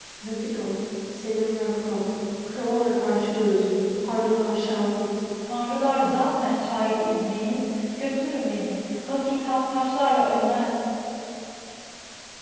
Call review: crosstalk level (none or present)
none